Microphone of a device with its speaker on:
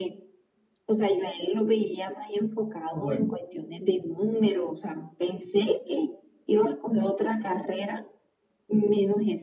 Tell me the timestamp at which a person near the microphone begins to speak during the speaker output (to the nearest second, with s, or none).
3 s